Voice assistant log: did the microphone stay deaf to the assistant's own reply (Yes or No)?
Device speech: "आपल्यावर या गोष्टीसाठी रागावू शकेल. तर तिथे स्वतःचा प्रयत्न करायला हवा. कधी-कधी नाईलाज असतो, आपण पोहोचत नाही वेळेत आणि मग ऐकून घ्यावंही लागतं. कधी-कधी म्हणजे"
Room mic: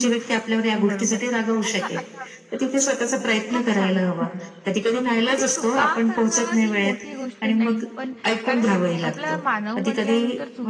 No